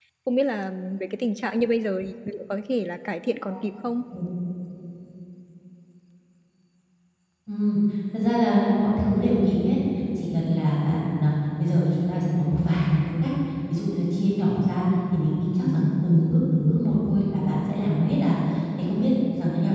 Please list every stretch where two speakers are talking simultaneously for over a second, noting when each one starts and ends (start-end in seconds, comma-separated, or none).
none